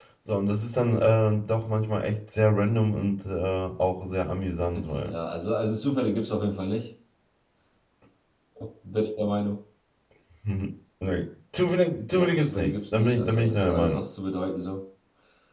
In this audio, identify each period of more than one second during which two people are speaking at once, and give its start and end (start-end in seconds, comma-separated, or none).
12.1-14.0